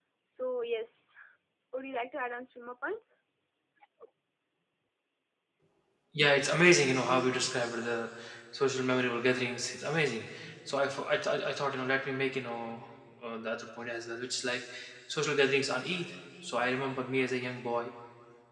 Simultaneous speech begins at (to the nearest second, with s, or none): none